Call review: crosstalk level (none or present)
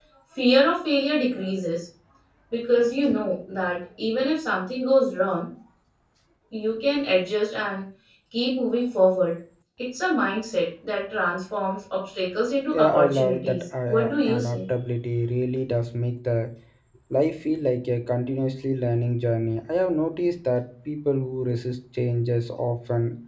present